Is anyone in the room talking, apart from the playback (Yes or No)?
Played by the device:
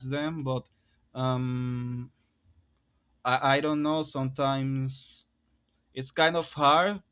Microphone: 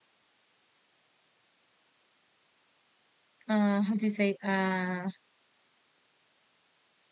Yes